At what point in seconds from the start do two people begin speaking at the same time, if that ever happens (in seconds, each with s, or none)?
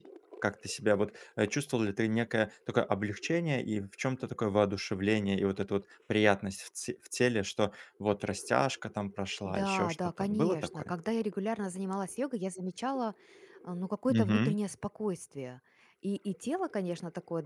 9.4 s